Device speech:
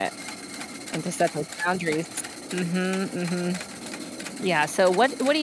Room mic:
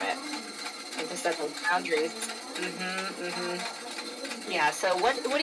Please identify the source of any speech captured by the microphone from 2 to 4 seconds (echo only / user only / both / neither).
both